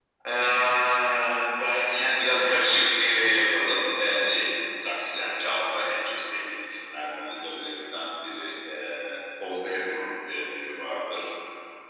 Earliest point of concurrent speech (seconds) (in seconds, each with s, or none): none